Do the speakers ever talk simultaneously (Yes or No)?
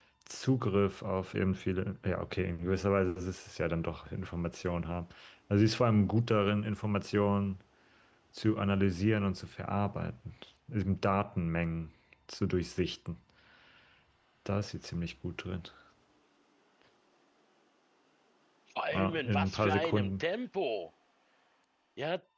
Yes